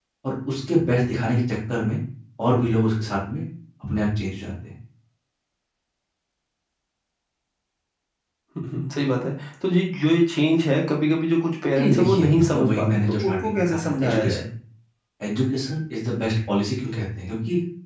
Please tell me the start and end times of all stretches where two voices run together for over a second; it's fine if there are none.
11.8-14.4

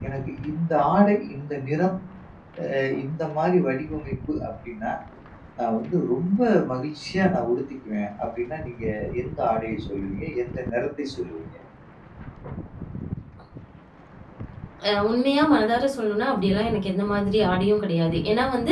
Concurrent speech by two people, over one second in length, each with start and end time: none

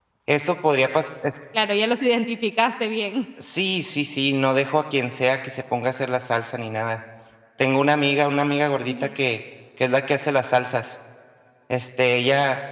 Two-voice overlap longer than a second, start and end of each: none

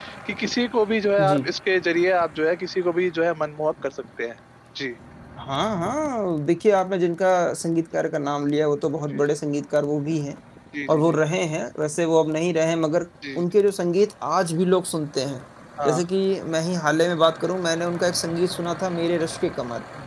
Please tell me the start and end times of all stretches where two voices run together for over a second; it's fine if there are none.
none

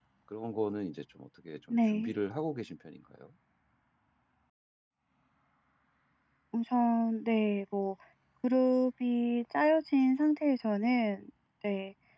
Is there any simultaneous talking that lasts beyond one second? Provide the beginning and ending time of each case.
none

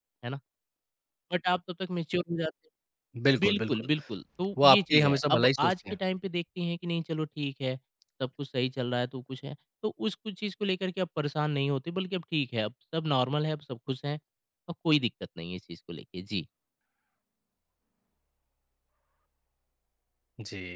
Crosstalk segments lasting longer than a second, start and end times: 4.6-6.0

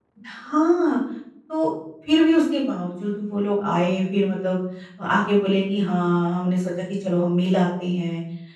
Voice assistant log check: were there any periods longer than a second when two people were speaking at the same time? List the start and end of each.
none

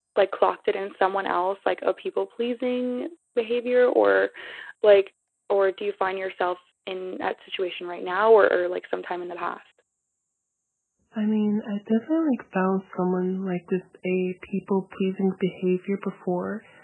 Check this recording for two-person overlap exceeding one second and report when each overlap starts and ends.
none

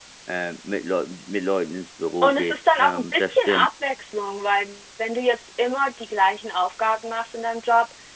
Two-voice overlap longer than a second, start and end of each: 2.2-3.7

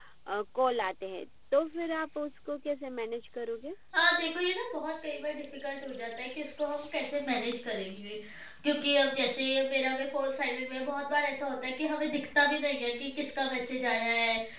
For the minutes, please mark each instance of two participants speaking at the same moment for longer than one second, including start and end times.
none

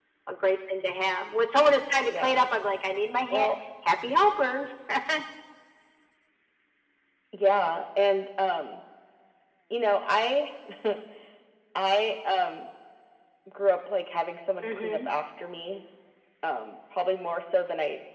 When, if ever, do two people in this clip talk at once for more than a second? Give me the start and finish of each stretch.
none

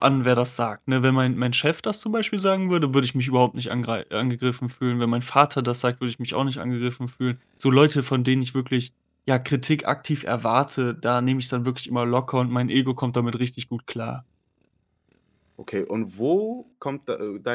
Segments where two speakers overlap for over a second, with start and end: none

